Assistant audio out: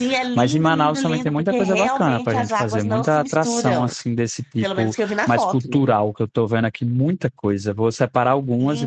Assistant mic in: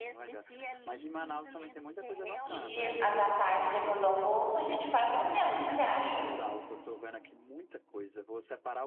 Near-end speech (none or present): present